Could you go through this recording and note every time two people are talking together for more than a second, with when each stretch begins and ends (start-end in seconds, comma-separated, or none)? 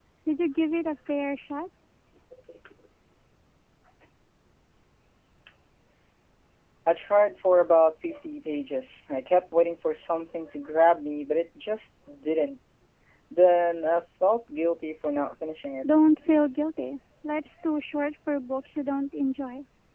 none